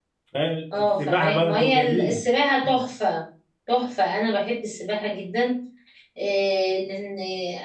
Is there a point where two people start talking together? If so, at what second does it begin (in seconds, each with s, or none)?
0.8 s